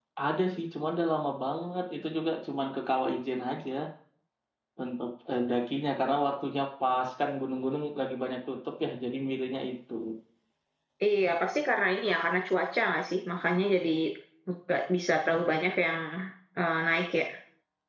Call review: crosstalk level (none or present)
none